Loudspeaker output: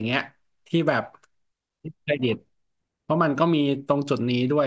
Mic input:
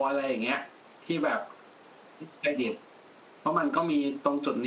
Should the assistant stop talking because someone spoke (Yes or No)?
No